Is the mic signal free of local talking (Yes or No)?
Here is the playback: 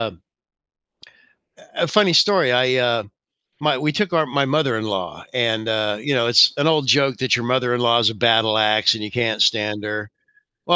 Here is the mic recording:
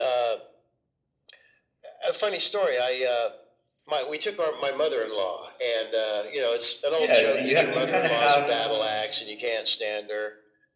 No